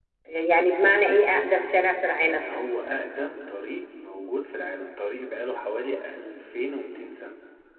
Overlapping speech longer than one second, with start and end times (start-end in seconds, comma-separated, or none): none